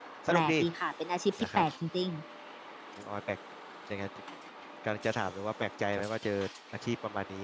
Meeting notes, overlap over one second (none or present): none